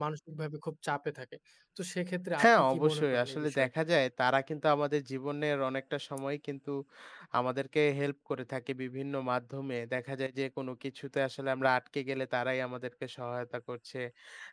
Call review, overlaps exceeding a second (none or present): present